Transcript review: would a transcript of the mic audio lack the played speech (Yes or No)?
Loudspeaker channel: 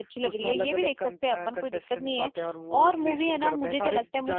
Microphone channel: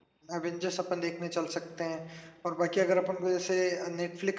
Yes